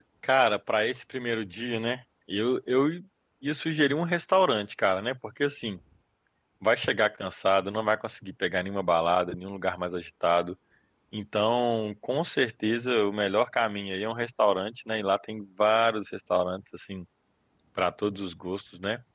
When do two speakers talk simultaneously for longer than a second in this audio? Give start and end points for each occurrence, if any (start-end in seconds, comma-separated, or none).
none